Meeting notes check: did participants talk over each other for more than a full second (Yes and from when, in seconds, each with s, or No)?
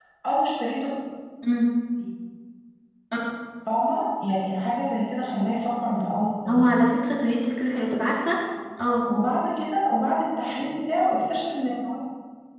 No